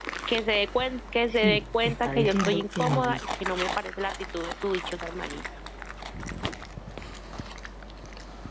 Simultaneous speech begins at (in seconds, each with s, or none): 1.3 s